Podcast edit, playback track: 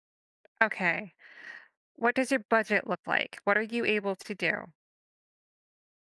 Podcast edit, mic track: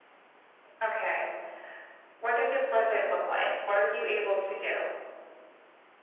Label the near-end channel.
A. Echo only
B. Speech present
A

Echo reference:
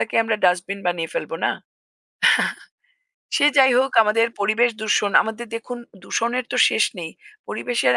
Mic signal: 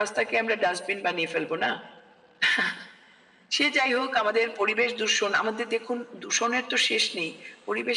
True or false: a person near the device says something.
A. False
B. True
A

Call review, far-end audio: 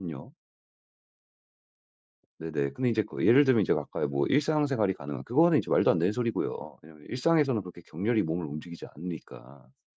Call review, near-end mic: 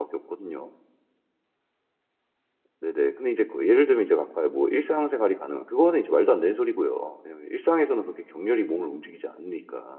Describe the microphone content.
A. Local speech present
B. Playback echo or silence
B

